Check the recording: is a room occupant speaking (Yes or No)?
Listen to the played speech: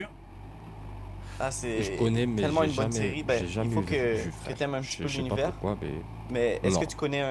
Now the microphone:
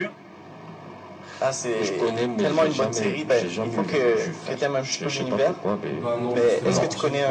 Yes